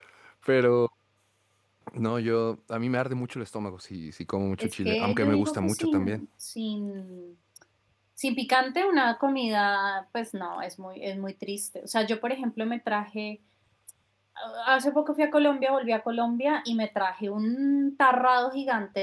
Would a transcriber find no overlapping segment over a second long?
No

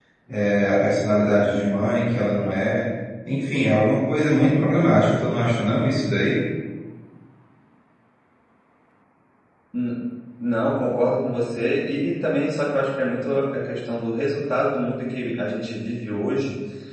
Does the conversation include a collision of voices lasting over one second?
No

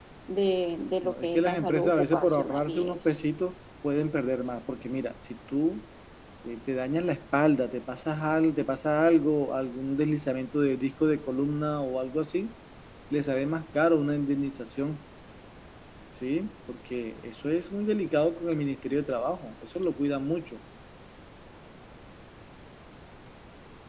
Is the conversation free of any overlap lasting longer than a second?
No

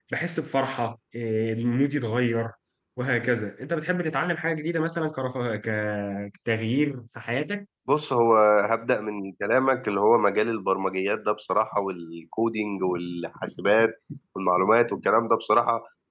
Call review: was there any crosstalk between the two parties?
No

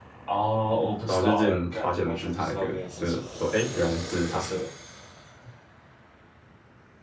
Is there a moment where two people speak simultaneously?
Yes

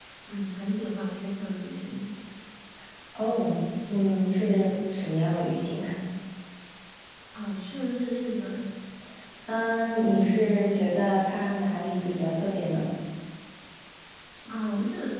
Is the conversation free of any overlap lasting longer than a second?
Yes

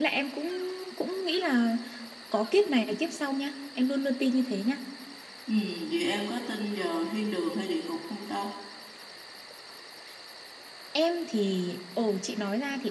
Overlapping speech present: No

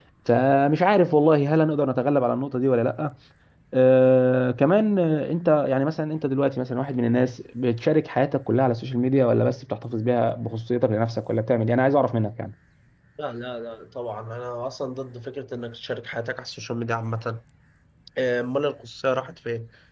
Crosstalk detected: No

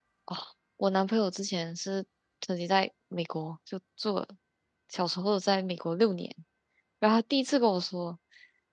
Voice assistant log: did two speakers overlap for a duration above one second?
No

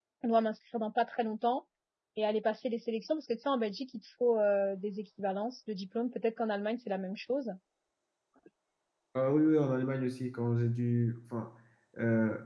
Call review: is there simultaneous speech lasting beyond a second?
No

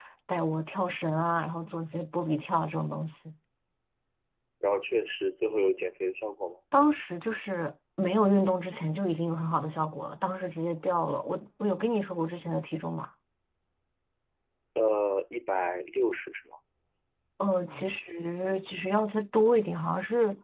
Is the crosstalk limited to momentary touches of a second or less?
Yes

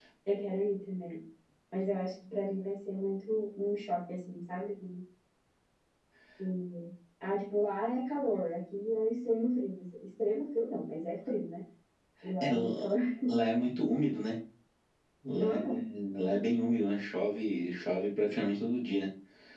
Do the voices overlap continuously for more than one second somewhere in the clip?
No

